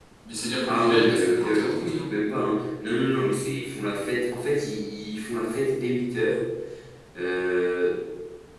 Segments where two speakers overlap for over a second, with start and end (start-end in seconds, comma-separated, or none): 0.7-2.1